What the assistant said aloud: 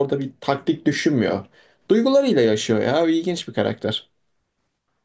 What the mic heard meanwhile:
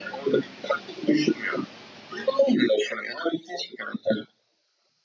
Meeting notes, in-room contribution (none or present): none